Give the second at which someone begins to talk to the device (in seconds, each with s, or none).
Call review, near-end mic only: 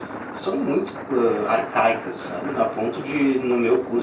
none